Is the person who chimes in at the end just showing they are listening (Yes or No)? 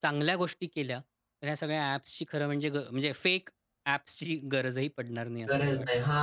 No